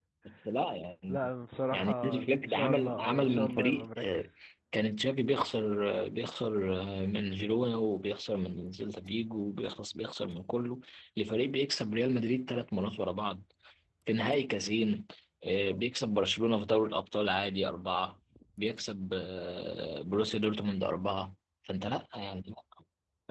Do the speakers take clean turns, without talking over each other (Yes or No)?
No